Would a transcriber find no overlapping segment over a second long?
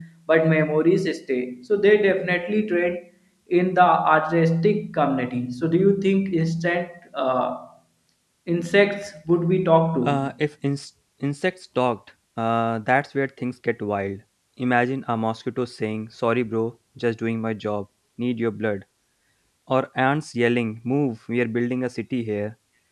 Yes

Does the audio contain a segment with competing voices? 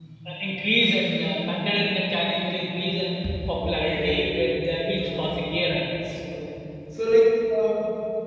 Yes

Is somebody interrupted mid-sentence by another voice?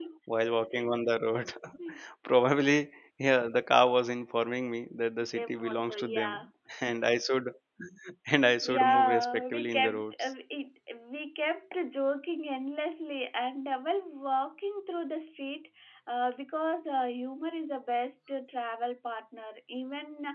Yes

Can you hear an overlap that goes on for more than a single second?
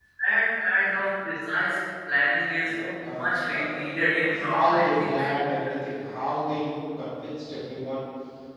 Yes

